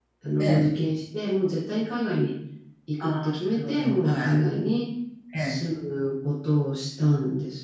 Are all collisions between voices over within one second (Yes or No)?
No